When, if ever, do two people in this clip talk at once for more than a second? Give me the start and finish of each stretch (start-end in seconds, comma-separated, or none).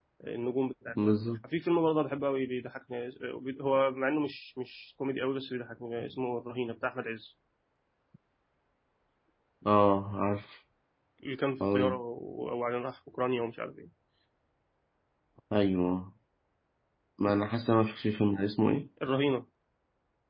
none